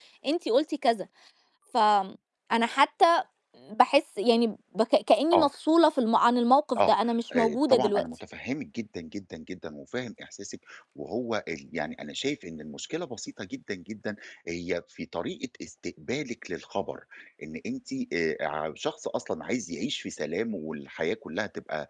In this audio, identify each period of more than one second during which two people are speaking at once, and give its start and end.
6.8-8.0

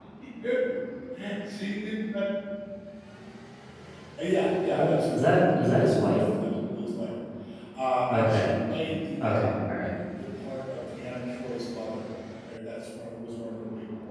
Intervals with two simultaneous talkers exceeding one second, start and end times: 4.8-6.2

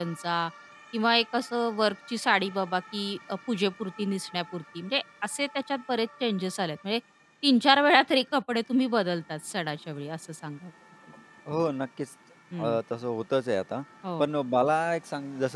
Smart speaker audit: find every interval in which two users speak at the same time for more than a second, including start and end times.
none

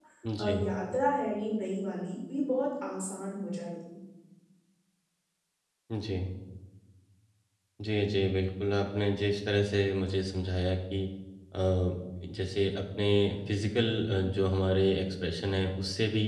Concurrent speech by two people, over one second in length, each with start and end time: none

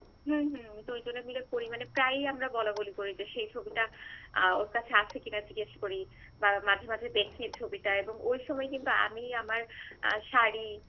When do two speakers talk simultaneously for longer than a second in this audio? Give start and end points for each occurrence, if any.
none

